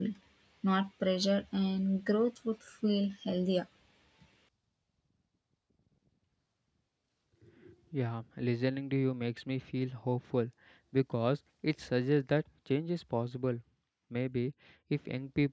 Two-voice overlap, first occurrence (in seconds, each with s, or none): none